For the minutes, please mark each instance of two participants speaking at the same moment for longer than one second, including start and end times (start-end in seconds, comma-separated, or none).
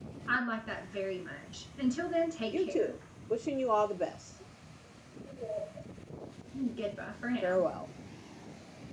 none